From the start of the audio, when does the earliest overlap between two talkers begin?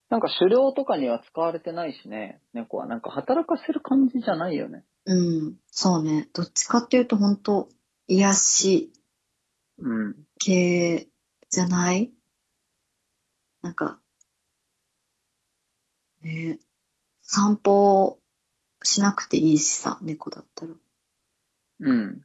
none

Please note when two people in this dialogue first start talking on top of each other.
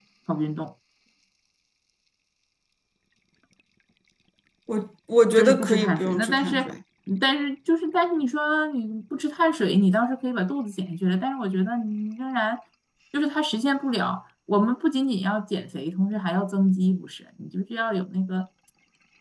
5.4 s

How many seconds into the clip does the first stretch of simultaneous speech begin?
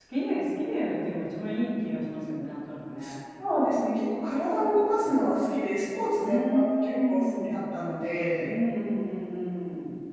6.2 s

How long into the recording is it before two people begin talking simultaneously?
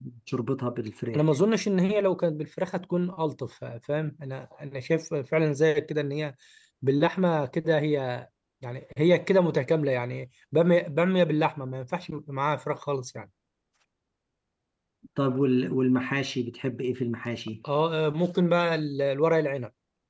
none

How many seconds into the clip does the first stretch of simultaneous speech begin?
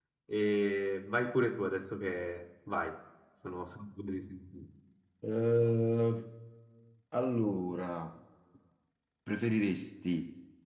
none

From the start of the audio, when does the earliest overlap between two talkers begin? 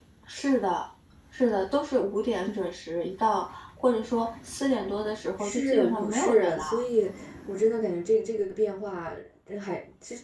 5.4 s

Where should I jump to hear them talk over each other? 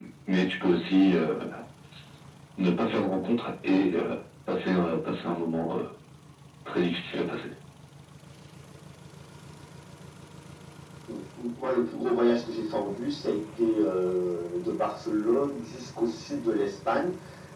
none

